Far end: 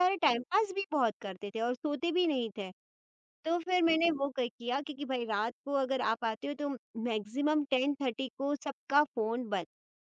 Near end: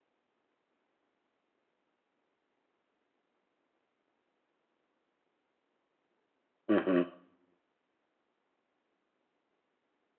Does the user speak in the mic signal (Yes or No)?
Yes